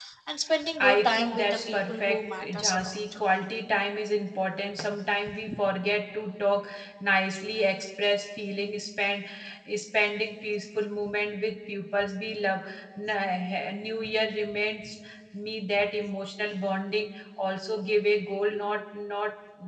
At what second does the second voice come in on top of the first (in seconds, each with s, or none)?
0.8 s